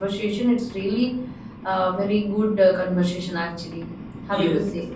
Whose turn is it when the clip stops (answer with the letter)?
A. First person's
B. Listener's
B